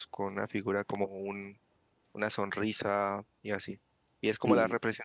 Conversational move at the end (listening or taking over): listening